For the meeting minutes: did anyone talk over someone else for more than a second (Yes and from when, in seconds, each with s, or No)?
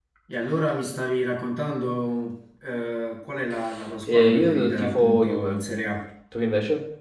Yes, from 4.1 s